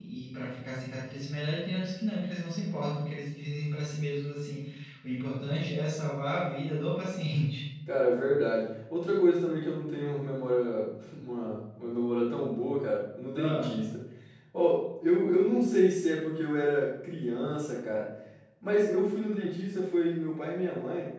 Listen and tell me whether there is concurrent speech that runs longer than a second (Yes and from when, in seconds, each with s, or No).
No